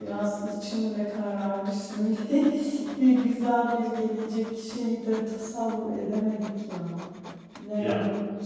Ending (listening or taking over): listening